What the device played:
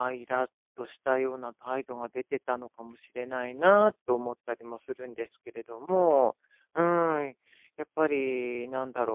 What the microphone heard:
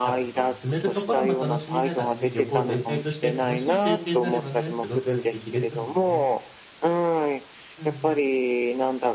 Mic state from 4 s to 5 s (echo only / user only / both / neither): both